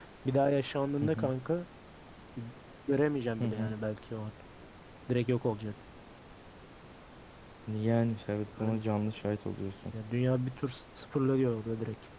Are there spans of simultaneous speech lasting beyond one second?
No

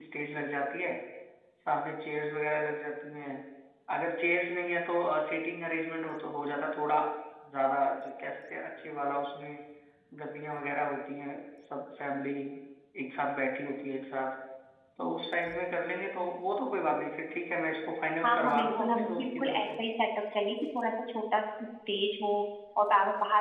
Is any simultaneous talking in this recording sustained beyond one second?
Yes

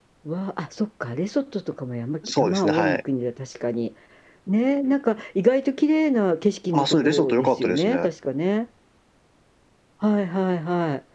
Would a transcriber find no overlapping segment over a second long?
No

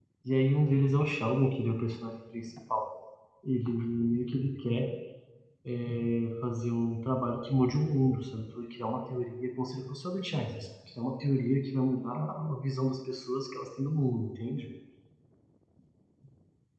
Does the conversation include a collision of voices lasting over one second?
No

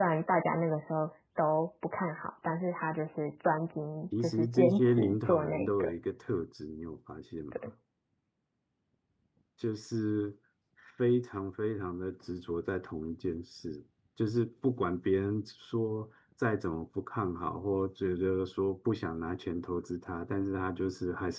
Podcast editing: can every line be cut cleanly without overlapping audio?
No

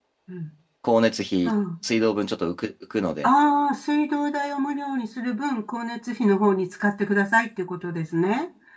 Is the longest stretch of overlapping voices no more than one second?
Yes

